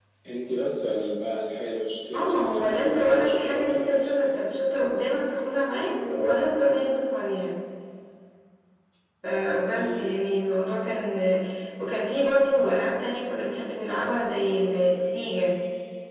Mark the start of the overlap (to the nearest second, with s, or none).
2 s